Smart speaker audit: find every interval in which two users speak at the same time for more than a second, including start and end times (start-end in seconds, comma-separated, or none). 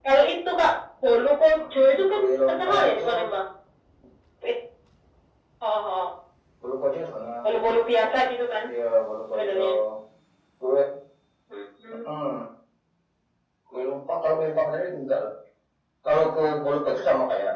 1.6-3.0